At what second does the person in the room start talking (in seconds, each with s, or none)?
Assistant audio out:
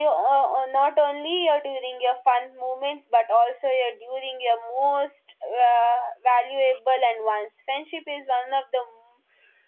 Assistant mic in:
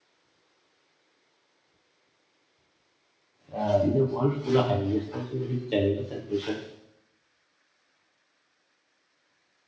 3.5 s